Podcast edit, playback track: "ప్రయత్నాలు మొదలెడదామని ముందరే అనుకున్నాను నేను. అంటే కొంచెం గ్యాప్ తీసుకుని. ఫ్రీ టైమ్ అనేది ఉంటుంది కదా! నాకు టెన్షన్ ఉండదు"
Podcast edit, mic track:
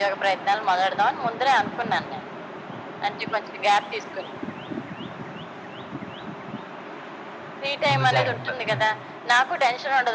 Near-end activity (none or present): present